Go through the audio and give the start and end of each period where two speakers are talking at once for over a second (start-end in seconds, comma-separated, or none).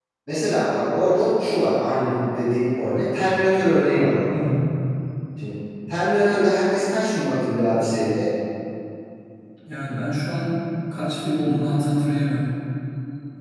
none